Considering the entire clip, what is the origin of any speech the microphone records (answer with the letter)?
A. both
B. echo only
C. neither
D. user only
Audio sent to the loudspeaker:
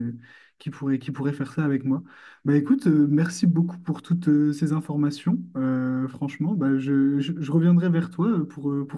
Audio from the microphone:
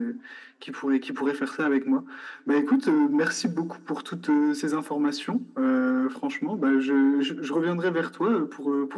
B